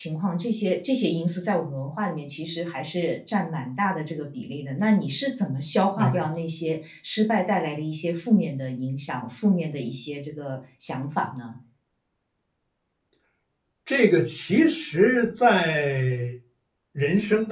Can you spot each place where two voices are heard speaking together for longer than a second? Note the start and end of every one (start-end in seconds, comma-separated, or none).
none